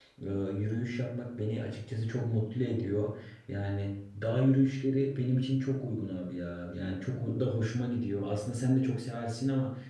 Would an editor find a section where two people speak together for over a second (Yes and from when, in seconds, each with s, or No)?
No